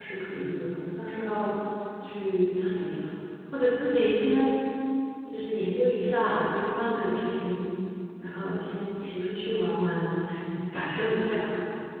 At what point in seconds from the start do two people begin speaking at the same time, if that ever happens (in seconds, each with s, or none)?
none